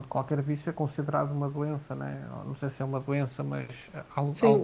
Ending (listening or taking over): taking over